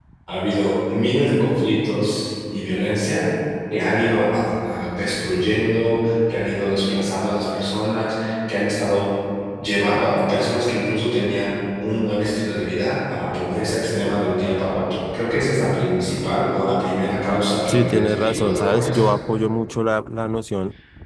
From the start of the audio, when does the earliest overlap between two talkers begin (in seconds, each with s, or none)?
17.7 s